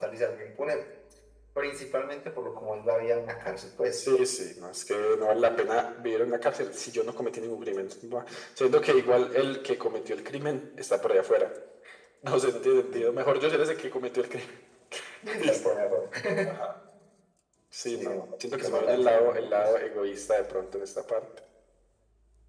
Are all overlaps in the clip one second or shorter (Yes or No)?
No